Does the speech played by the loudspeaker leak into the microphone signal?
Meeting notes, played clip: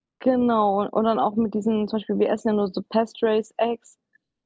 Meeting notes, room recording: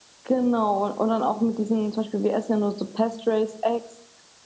Yes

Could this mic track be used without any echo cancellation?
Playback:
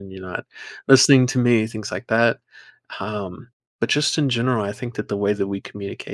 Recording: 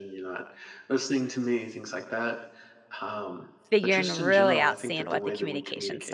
No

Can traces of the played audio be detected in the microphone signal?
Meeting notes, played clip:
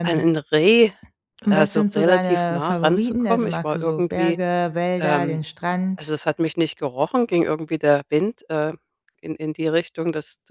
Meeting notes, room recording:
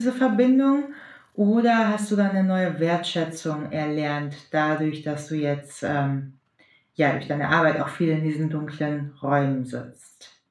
No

